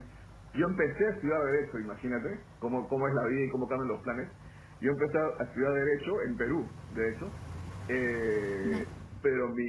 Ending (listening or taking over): listening